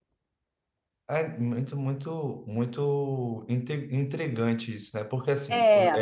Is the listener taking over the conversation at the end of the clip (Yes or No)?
No